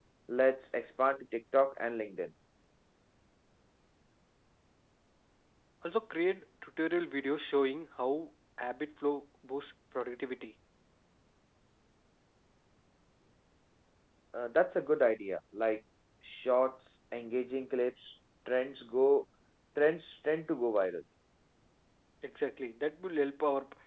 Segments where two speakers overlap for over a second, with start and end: none

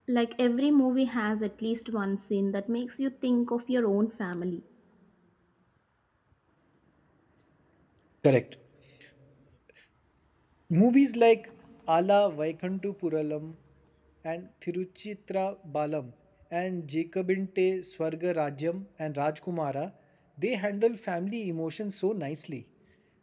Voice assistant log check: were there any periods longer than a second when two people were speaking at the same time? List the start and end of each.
none

